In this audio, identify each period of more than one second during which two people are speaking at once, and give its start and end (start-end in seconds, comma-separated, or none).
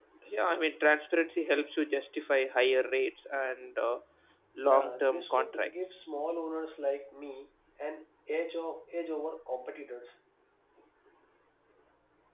4.6-6.0